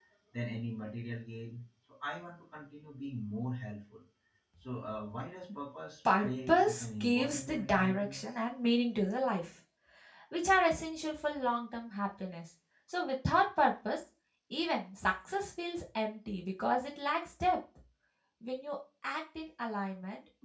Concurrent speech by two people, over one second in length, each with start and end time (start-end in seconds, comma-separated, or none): 6.2-8.3